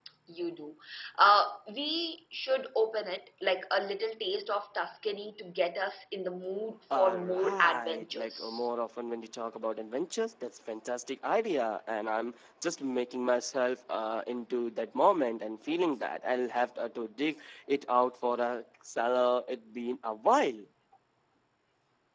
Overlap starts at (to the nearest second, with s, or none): 7 s